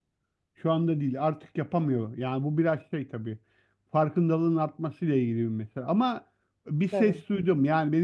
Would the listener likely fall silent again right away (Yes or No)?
Yes